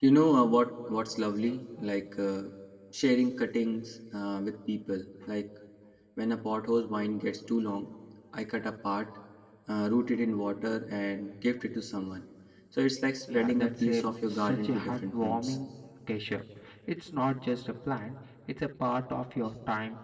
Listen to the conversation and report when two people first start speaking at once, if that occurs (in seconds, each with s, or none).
13.3 s